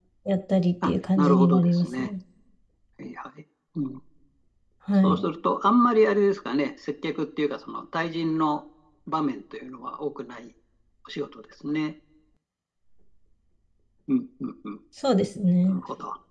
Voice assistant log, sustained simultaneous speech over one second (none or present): present